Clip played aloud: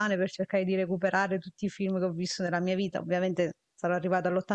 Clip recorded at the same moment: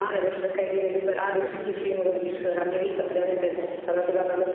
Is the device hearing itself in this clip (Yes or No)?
Yes